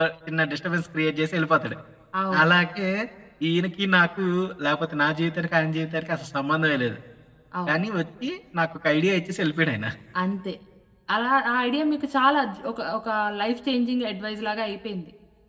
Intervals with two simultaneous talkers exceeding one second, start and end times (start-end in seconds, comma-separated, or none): none